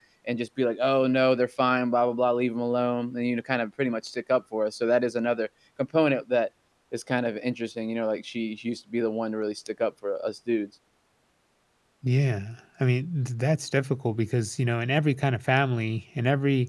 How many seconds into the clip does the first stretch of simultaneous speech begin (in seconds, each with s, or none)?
none